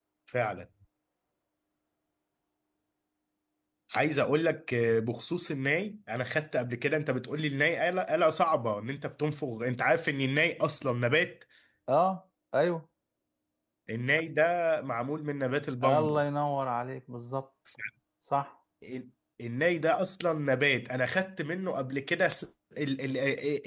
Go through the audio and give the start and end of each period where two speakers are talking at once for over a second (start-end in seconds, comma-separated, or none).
none